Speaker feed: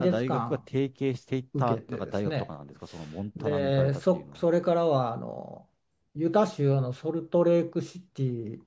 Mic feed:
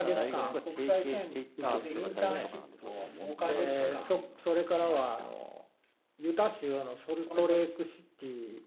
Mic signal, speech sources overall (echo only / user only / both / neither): both